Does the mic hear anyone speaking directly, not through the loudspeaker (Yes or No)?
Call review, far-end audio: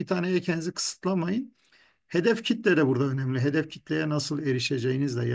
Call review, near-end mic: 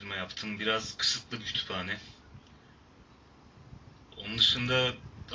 Yes